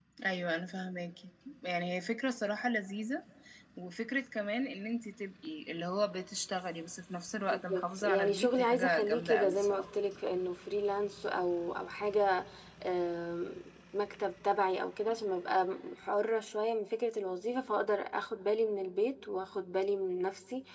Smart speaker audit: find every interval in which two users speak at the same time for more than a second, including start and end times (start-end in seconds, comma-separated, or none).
7.5-9.8